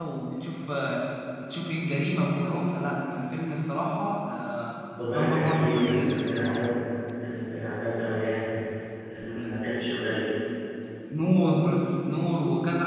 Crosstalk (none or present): present